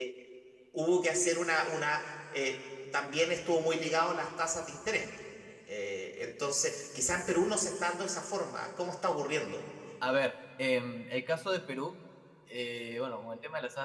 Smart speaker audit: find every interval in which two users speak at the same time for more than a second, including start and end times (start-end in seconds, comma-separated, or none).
none